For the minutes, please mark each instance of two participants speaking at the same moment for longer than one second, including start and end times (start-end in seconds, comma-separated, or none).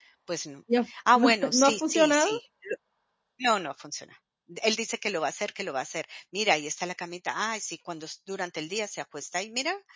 1.1-2.4